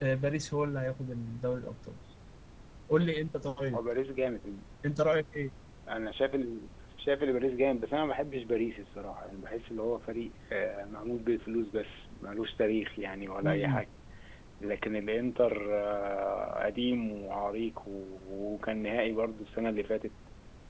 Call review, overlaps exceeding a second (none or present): none